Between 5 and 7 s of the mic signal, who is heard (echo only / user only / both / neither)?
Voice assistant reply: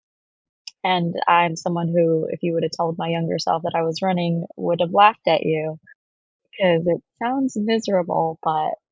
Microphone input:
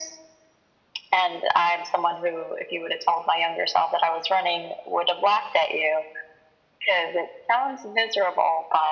echo only